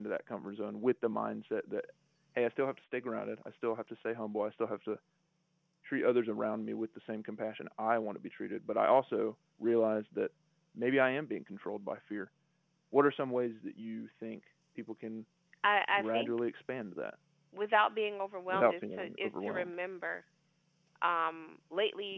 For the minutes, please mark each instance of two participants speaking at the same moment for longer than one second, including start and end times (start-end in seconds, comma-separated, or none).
18.5-19.7